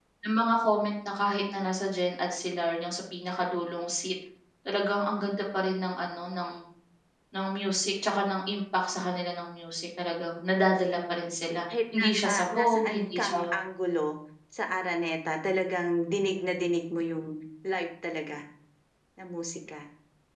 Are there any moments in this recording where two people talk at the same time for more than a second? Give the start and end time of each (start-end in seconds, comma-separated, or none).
12.0-13.4